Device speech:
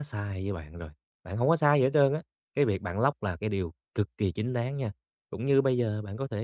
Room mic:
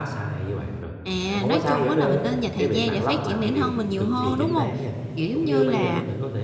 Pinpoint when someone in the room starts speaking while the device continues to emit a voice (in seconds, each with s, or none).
1.0 s